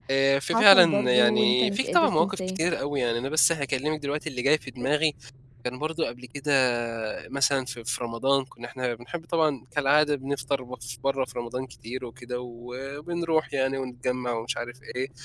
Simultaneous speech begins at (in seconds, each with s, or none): 0.5 s